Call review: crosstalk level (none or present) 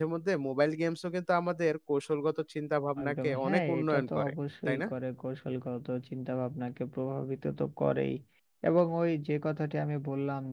present